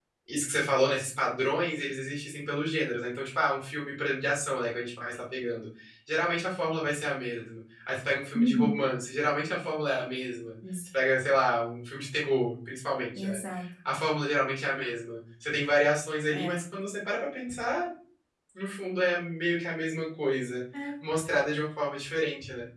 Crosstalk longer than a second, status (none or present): none